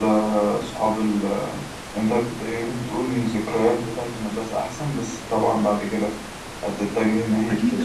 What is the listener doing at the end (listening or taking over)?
taking over